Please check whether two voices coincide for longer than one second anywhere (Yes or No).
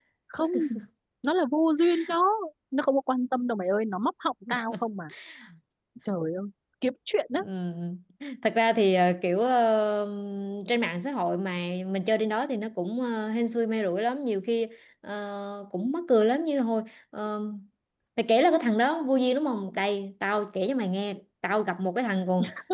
No